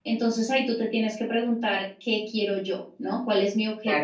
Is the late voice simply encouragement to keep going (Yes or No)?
No